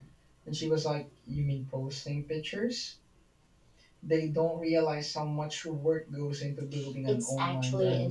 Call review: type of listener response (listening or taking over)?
taking over